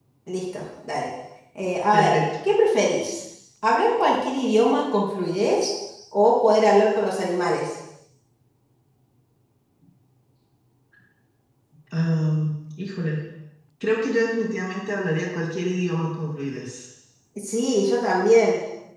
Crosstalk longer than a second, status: none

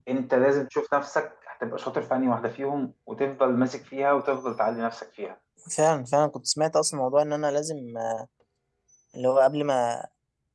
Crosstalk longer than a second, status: none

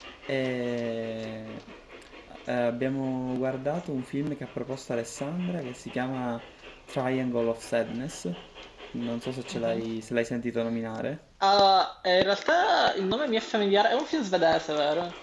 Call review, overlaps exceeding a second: none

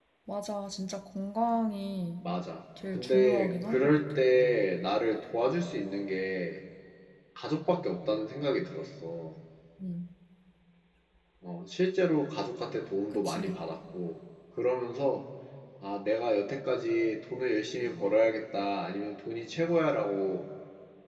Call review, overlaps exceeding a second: present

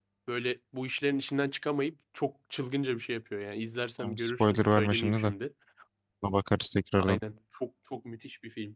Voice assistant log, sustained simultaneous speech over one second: present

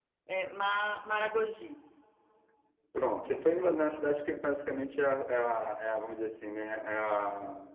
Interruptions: none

